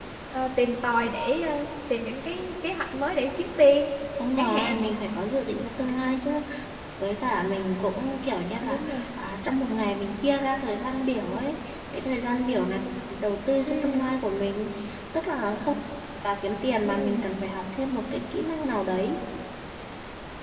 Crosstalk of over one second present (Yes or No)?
No